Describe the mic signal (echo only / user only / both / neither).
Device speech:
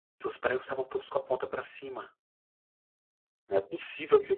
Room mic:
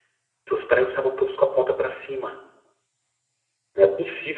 echo only